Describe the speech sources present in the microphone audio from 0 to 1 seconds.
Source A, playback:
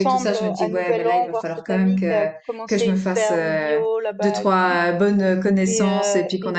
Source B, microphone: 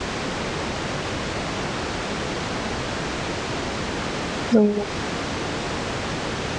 neither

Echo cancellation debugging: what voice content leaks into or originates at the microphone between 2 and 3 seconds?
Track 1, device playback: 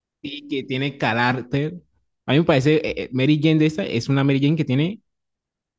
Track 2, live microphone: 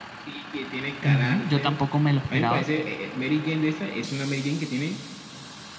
both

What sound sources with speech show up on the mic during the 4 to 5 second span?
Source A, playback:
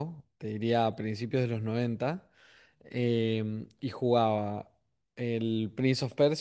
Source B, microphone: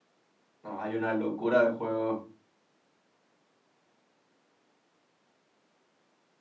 neither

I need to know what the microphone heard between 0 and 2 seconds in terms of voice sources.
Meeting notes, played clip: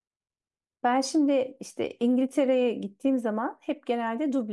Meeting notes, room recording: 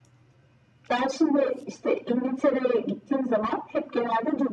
echo only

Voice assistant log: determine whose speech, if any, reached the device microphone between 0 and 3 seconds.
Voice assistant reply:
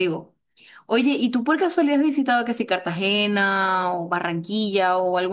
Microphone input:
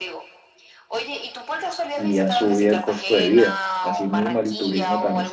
both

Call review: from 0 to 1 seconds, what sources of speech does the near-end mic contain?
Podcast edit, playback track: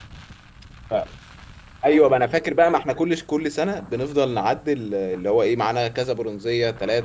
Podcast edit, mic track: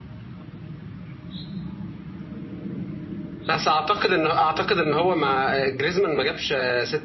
neither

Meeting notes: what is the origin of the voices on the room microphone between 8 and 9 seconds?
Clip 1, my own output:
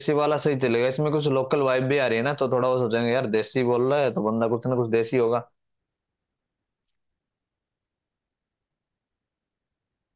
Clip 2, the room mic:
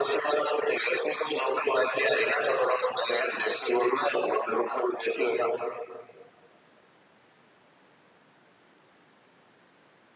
neither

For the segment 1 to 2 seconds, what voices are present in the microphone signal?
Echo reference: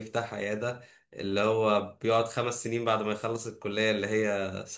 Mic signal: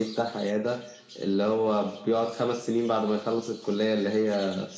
echo only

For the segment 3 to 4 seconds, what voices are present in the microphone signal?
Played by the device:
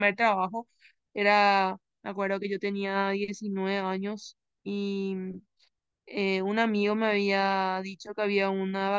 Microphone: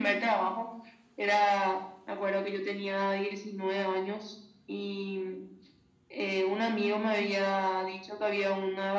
echo only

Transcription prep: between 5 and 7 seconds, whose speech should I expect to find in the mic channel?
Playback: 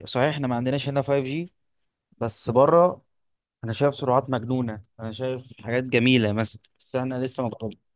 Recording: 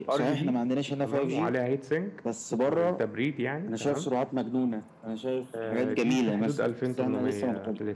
both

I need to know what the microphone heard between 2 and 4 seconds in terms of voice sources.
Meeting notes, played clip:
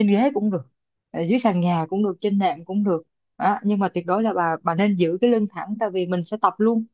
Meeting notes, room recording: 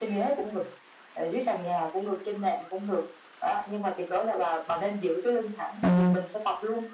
echo only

